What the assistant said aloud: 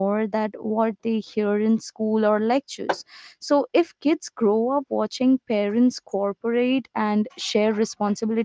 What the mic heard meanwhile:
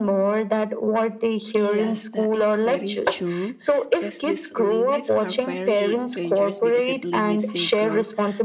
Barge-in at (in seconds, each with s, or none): 1.6 s